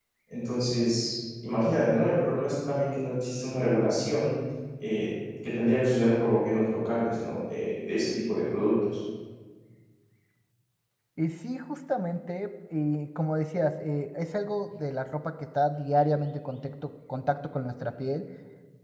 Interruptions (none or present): none